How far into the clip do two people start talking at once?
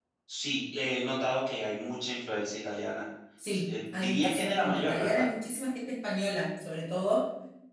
3.6 s

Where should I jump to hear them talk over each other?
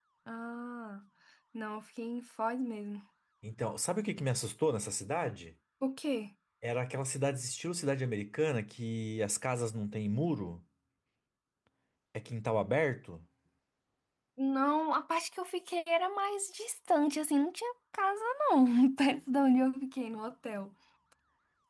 none

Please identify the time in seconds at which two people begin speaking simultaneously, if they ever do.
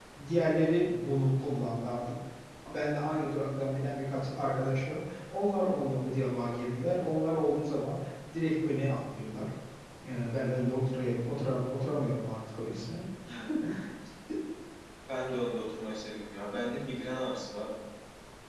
none

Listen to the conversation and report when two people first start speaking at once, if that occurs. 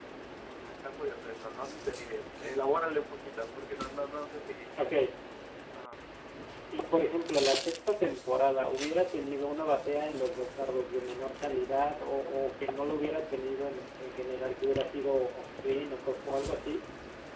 none

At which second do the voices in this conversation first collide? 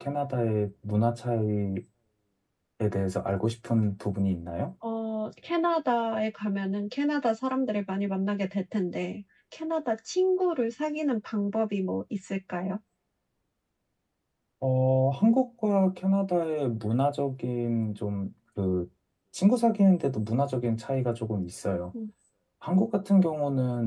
none

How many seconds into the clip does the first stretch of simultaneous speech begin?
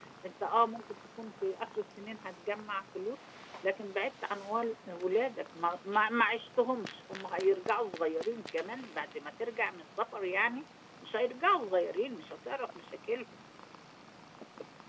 none

